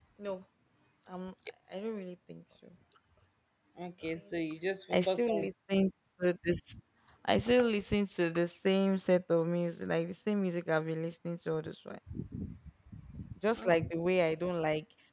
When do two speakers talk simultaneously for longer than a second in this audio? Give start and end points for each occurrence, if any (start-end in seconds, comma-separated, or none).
none